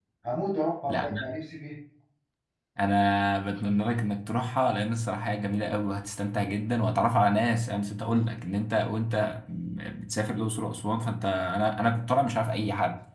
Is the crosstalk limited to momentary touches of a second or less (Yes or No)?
Yes